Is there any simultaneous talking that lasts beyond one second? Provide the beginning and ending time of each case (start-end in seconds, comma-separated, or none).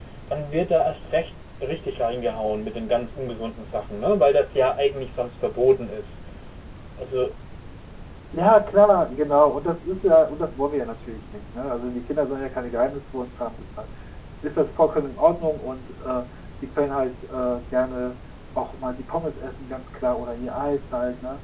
none